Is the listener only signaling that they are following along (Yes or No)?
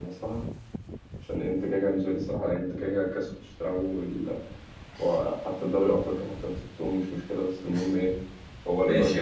No